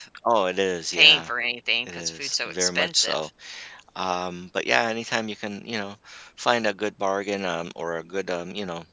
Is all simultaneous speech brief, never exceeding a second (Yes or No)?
No